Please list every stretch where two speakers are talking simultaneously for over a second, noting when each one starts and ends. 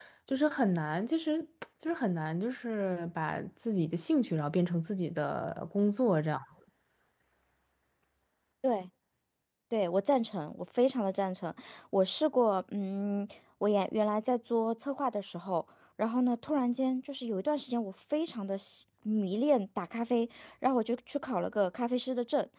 none

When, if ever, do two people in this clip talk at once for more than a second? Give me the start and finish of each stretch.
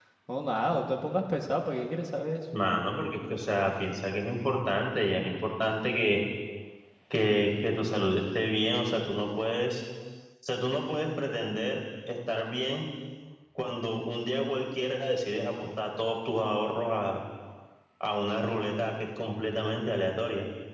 none

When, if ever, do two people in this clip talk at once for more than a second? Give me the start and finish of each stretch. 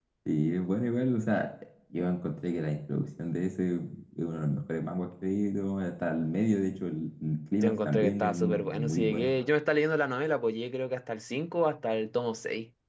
7.6-9.3

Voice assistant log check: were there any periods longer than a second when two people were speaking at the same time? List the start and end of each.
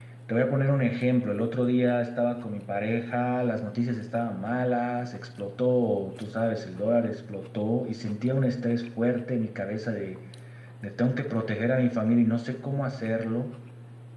none

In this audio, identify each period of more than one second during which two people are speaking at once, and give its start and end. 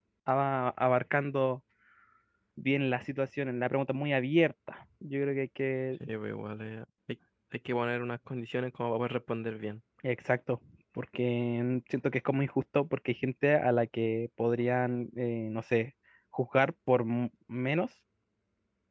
none

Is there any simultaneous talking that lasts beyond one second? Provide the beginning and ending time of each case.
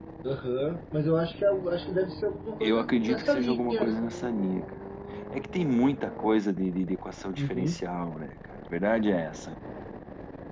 2.6-4.0

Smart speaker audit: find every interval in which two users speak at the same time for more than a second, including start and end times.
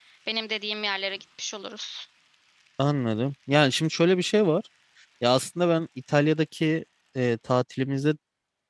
none

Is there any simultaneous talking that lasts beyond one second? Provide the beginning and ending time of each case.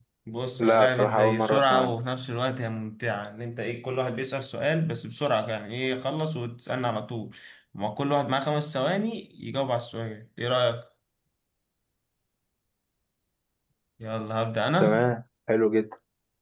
0.6-1.9

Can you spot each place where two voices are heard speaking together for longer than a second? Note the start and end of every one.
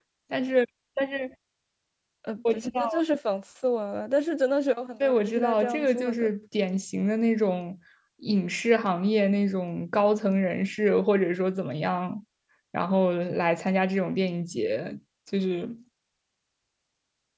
5.0-6.3

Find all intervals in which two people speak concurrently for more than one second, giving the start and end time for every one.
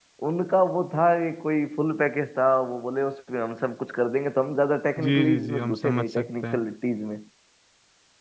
5.0-6.6

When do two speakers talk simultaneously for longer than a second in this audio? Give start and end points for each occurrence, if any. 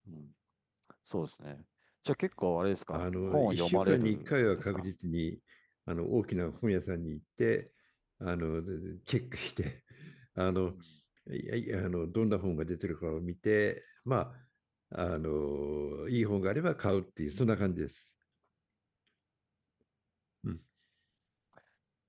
2.9-4.8

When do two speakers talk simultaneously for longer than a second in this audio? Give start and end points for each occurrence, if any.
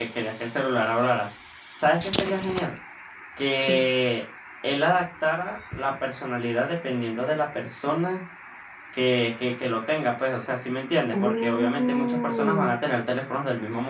11.1-12.7

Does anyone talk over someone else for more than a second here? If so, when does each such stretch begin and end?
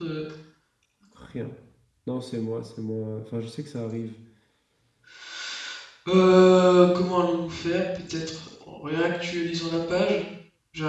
none

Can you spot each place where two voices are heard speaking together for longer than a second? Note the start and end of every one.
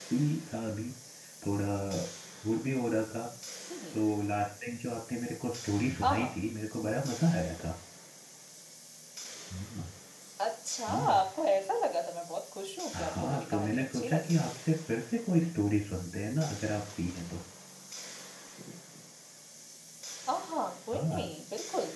12.9-14.5

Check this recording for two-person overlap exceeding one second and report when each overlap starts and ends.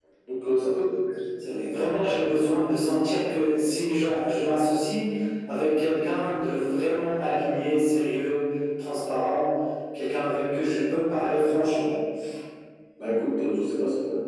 none

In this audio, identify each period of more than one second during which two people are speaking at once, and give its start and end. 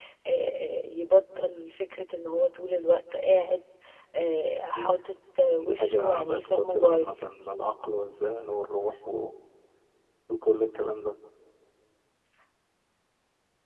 5.6-7.1

